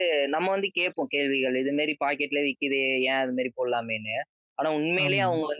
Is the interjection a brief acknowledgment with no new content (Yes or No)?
Yes